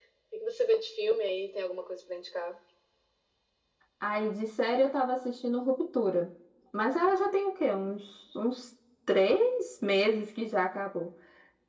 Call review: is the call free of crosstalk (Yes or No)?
Yes